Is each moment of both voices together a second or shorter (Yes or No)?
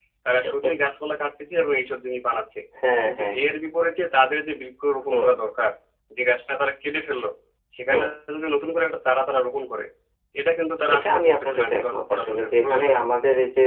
No